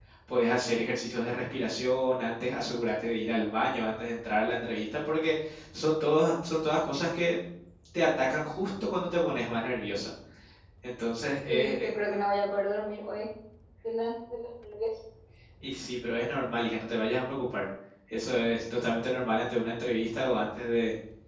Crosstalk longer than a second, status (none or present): none